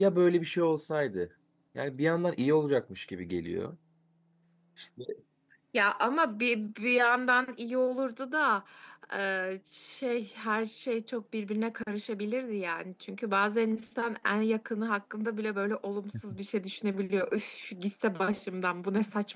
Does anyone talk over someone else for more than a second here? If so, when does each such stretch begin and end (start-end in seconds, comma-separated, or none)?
none